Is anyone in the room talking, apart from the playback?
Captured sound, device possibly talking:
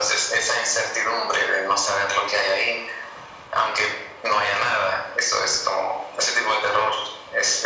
No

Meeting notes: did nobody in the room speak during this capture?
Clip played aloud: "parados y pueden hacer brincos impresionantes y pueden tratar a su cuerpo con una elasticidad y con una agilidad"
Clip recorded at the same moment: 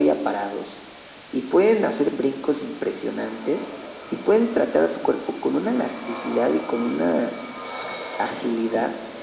Yes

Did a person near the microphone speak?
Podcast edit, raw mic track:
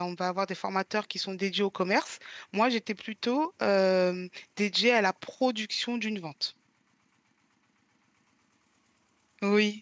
Yes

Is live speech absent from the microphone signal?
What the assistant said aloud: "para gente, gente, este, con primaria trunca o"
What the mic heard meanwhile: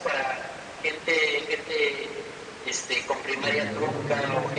No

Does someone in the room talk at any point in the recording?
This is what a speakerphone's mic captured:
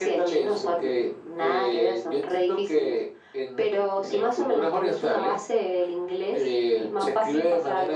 No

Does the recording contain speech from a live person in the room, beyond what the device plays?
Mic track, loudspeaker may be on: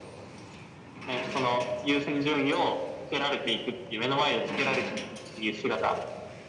No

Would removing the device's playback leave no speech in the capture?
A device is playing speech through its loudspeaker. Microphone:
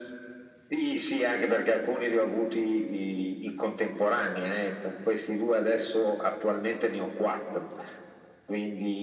Yes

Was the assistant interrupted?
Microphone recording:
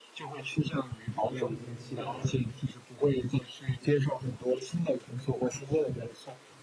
Yes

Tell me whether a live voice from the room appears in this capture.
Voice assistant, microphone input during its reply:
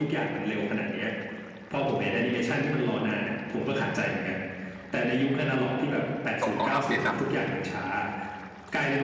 Yes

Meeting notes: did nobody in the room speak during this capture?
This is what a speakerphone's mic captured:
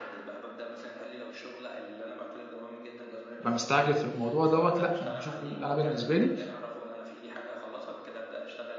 No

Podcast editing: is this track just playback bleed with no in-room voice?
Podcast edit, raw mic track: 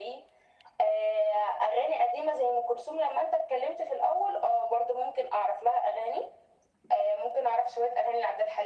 Yes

